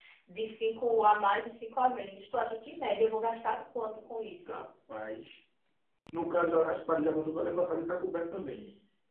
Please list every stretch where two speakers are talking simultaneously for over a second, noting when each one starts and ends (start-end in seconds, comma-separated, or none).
none